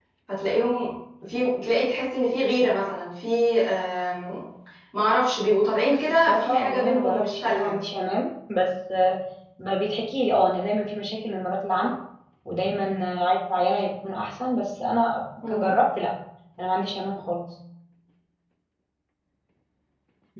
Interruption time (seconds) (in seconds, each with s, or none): 5.9 s